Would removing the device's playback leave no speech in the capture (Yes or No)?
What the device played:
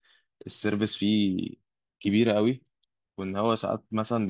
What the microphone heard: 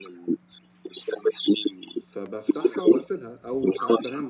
No